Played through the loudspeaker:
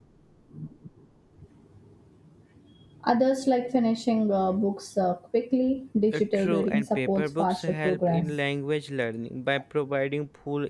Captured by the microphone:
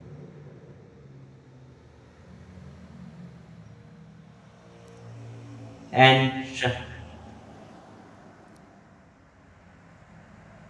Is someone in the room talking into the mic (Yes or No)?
Yes